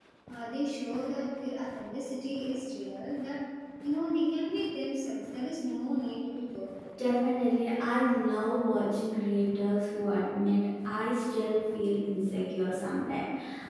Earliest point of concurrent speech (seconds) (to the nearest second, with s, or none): none